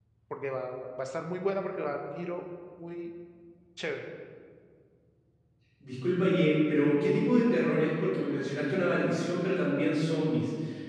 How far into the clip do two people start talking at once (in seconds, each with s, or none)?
none